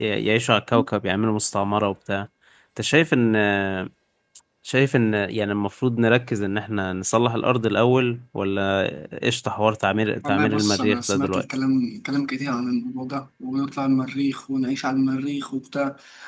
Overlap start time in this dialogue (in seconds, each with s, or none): 10.2 s